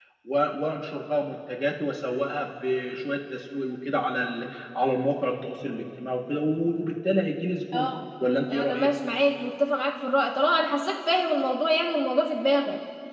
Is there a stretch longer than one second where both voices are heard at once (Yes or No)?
No